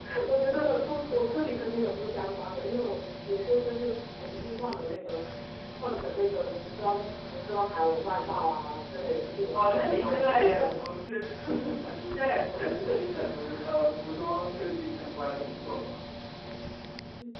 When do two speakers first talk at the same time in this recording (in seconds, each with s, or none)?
9.5 s